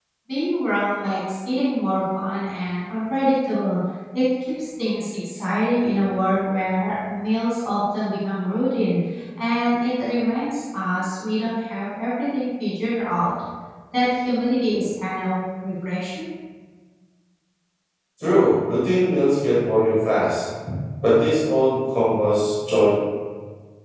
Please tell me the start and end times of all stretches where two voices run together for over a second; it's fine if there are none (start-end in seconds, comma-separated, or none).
none